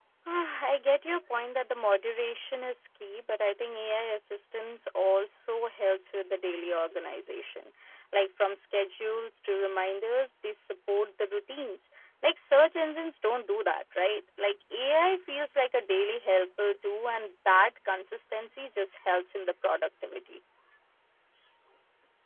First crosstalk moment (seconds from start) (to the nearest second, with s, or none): none